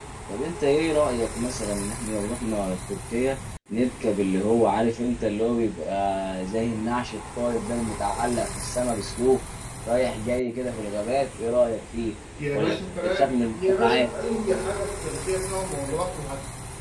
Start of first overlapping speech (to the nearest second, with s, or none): 12 s